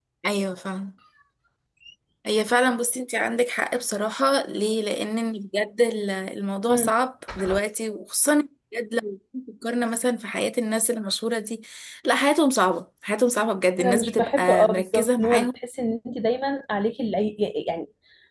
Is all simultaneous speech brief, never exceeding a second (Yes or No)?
No